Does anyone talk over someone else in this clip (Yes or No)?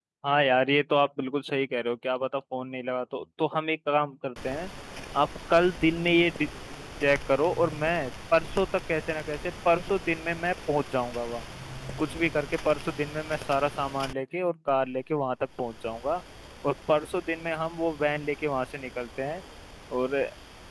No